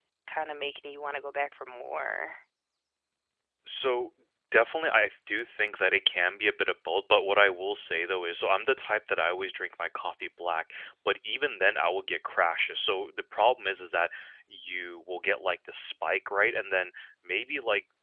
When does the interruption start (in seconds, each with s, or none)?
none